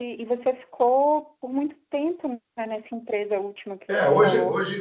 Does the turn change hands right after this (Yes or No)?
Yes